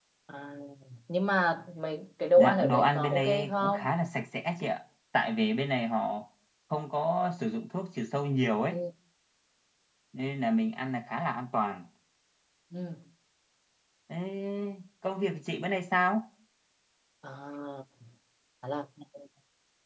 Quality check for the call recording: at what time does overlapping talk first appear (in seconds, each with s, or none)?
2.4 s